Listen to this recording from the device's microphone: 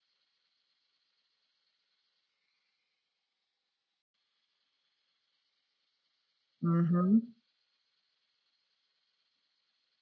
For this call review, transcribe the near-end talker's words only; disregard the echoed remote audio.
Mhm.

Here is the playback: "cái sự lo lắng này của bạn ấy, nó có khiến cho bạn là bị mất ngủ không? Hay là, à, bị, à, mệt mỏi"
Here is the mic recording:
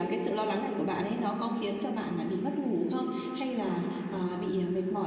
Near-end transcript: none

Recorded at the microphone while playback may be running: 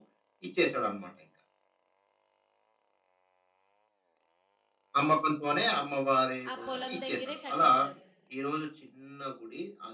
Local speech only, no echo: ఆ పొలం దగ్గరే కట్టేశారు.

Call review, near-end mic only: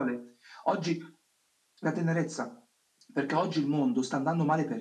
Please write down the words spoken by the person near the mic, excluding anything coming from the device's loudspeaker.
none

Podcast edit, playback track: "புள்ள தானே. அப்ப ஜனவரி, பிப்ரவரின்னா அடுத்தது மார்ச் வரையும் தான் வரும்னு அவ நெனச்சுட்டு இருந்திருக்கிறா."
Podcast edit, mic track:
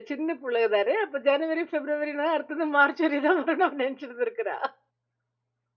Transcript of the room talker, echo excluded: none

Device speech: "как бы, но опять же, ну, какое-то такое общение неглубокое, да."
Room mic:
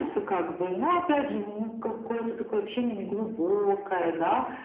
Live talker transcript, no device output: none

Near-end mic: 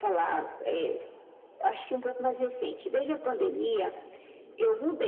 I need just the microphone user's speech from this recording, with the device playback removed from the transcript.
none

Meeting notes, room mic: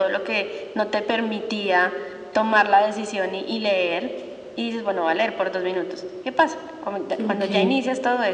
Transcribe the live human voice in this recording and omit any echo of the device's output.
Ok.

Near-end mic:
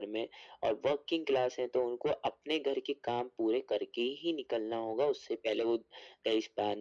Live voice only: none

